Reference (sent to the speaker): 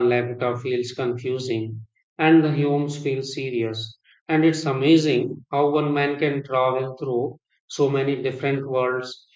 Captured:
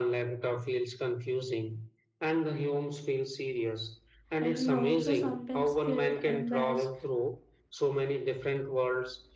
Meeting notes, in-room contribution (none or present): present